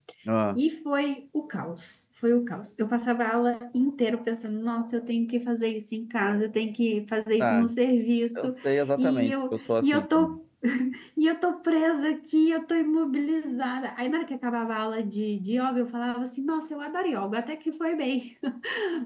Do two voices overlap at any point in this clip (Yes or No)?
Yes